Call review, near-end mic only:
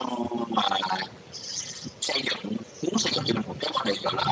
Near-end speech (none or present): none